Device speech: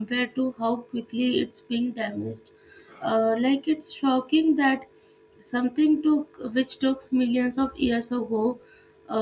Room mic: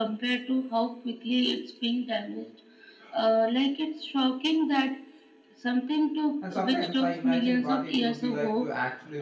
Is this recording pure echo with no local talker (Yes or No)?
No